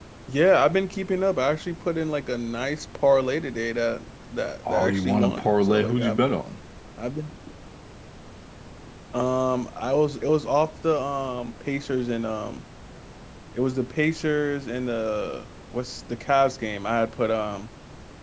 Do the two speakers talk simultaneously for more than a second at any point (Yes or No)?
Yes